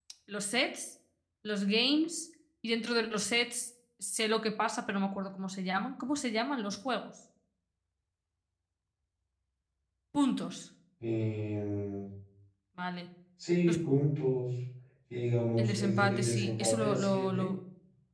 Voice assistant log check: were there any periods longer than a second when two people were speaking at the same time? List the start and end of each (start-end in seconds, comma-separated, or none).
15.6-17.5